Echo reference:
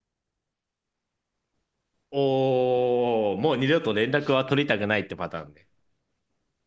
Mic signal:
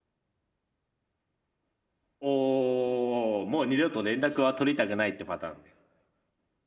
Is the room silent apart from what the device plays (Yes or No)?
Yes